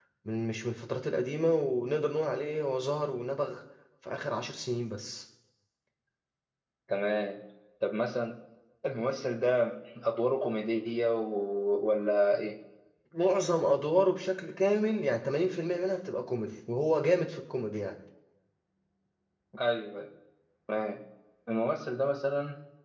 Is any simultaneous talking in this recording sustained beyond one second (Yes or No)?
No